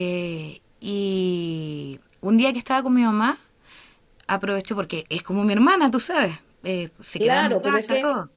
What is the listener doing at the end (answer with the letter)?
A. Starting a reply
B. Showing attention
A